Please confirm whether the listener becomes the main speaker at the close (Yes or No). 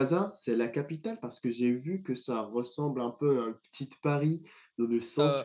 No